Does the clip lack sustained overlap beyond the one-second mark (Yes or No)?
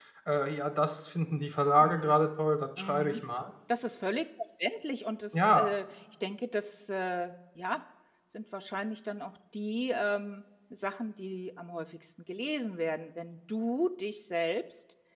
Yes